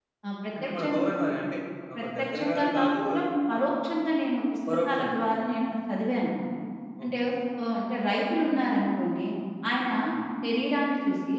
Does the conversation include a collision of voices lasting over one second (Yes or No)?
Yes